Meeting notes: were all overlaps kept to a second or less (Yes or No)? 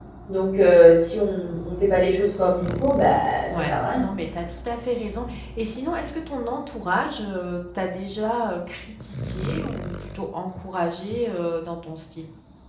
Yes